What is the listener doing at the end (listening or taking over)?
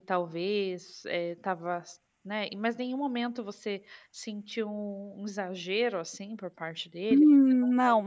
taking over